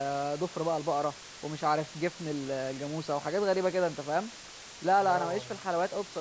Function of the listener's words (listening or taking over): listening